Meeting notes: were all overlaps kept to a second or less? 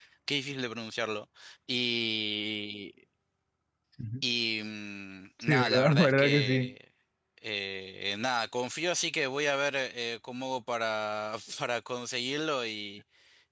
No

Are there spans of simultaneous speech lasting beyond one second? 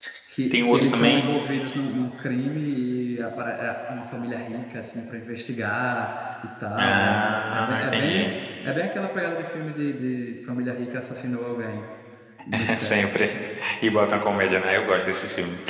Yes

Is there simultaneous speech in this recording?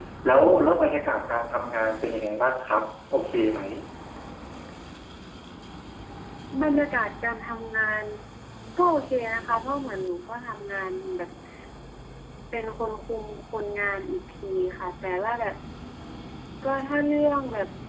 No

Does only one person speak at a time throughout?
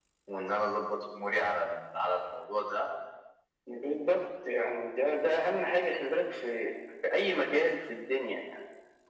Yes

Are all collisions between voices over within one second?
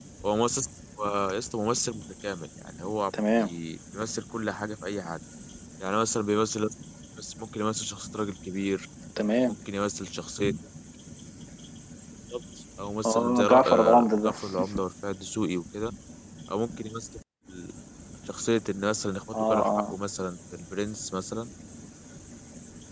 No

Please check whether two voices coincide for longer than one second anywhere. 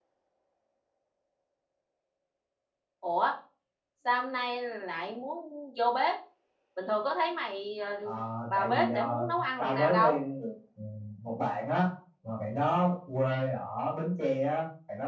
Yes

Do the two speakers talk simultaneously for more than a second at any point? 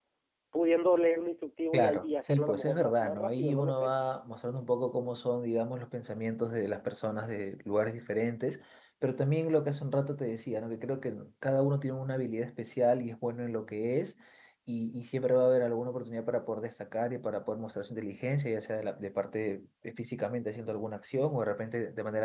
Yes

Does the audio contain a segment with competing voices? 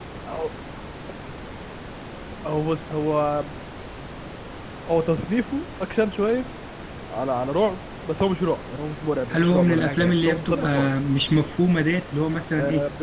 Yes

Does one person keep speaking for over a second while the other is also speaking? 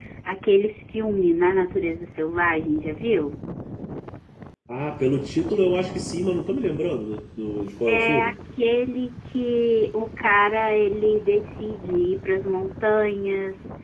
No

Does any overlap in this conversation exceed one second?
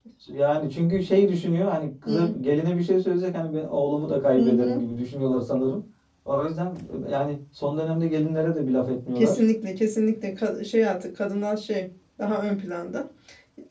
No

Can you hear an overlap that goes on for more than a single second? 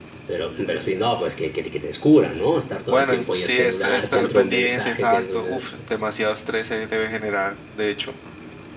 Yes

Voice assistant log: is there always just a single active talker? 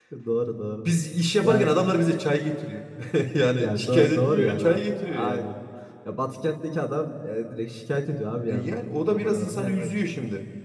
No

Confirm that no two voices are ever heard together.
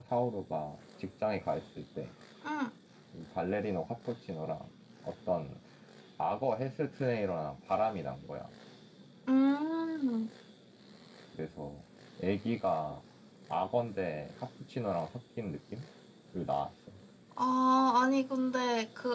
Yes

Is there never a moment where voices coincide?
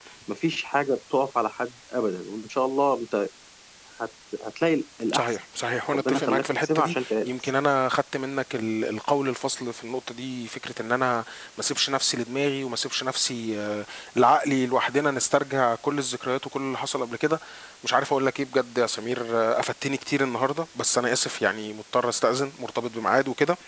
No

